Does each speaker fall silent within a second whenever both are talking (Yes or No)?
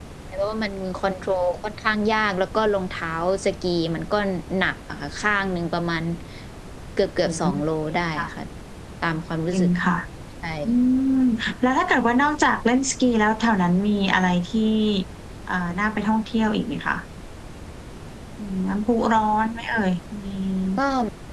Yes